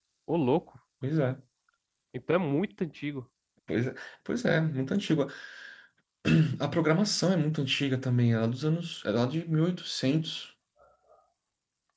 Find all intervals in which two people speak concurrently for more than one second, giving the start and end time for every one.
none

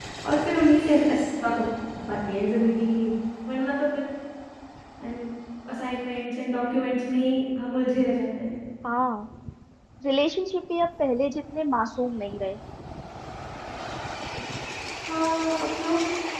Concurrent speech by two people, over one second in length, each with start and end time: none

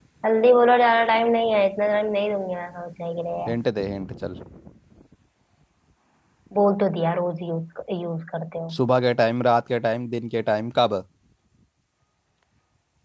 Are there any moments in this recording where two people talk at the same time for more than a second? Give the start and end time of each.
none

